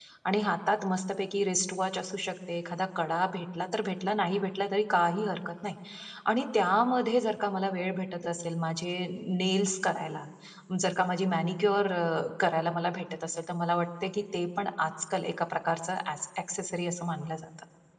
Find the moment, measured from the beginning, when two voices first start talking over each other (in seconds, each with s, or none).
none